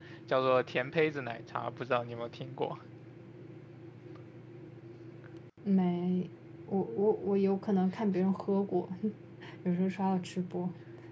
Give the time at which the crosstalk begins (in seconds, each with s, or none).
none